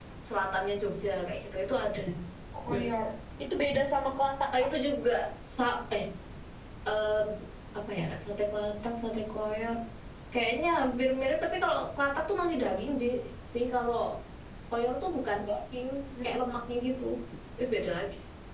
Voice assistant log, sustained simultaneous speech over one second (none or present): none